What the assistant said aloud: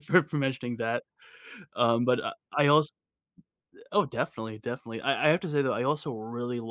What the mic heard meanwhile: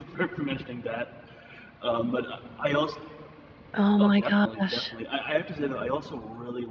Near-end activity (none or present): present